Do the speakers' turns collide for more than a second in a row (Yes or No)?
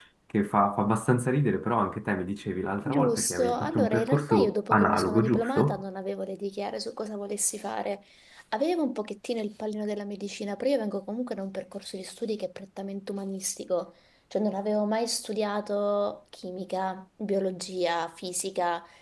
Yes